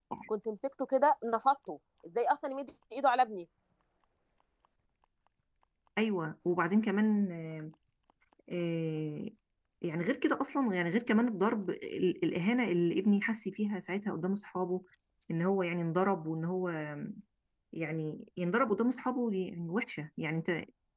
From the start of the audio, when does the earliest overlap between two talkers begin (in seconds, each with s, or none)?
none